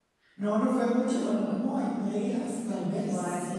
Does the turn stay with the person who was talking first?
Yes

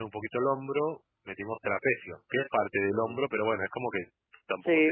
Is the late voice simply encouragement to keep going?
No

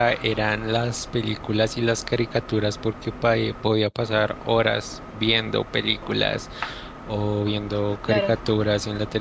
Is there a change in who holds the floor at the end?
No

